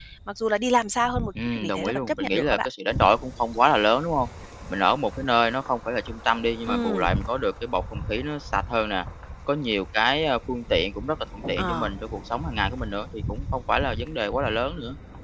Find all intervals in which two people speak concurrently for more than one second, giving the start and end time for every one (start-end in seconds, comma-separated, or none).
1.4-2.7